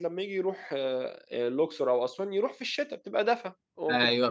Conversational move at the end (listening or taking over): taking over